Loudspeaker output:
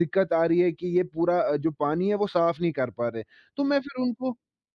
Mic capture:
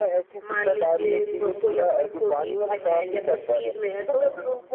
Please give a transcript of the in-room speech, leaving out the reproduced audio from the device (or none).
मान लीजिए क कोई अपनी 40s में है या 50s में है तो